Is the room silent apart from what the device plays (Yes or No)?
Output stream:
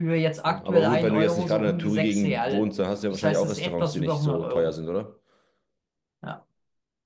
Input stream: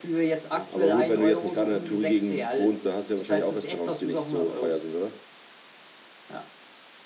Yes